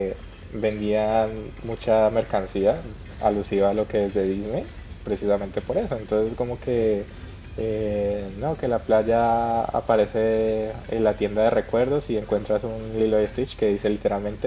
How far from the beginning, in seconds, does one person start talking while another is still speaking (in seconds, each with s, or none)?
none